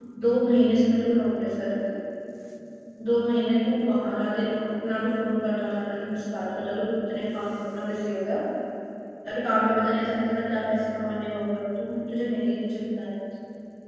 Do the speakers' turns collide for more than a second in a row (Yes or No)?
No